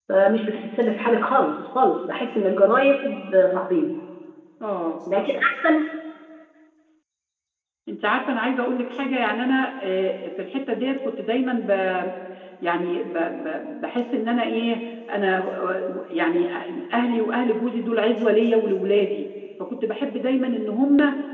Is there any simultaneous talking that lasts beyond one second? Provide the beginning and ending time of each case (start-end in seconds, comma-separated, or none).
none